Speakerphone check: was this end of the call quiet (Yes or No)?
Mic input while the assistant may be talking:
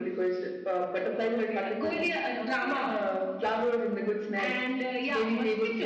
No